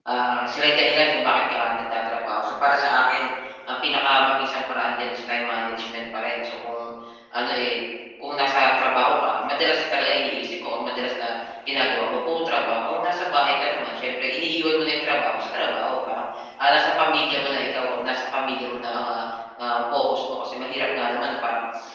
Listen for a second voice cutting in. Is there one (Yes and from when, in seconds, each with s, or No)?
No